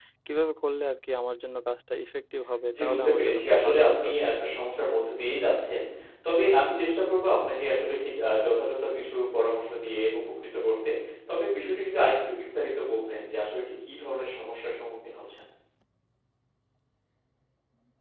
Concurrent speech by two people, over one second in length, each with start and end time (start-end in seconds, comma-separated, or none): 2.7-4.1